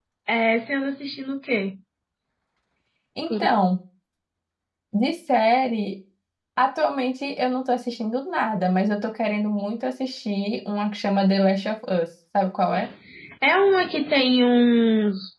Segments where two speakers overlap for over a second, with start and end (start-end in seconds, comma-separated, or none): none